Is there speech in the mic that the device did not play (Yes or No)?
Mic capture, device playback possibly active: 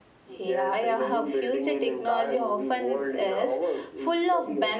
Yes